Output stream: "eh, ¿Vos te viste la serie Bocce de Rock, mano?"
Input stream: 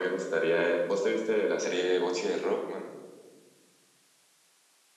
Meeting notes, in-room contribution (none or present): none